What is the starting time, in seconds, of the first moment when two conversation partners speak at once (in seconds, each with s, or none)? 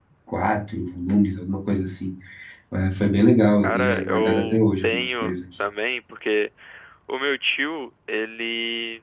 3.6 s